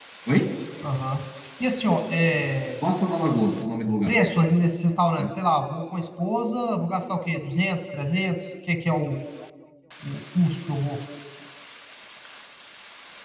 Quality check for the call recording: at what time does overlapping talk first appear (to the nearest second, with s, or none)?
none